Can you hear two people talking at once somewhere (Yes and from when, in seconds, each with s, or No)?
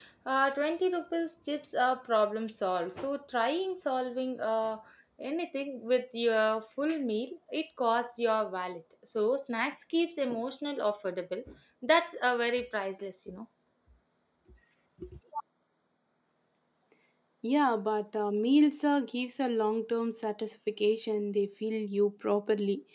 No